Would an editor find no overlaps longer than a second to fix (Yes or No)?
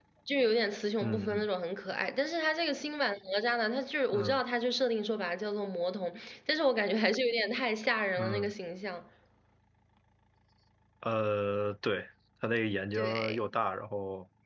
Yes